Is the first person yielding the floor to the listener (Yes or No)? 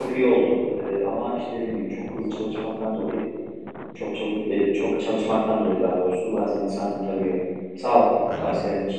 Yes